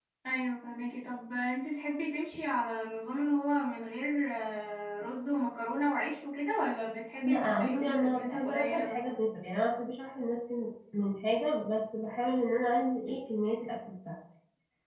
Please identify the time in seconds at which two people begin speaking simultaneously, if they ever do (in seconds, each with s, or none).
7.2 s